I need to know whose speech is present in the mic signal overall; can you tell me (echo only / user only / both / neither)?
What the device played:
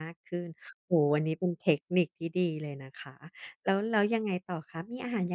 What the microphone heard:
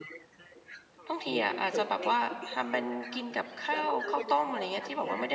both